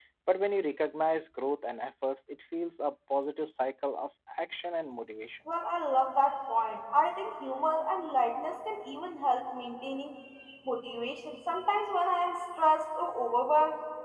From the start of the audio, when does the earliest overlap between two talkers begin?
none

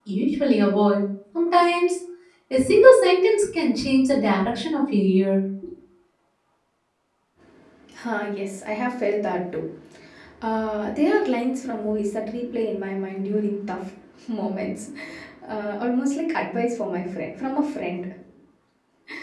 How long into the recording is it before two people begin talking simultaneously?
none

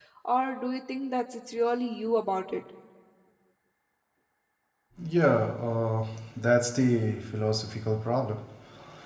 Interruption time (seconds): none

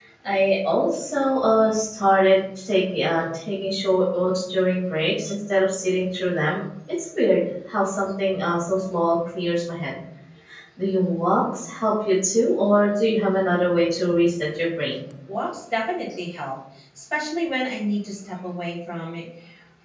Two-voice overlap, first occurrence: none

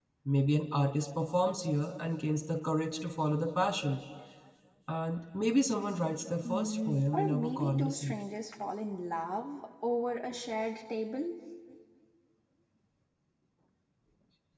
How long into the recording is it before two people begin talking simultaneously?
6.4 s

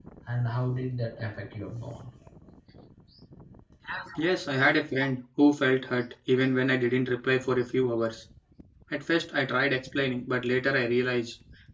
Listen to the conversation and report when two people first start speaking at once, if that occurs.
none

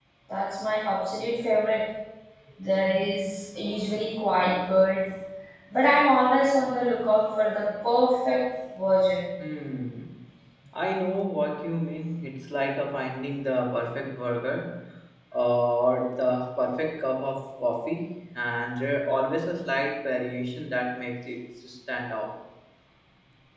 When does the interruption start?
none

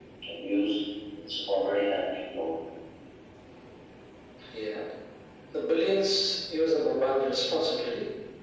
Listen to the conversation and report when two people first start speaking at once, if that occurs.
none

